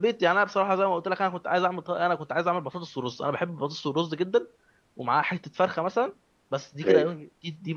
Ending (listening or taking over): listening